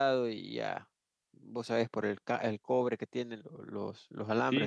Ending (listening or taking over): taking over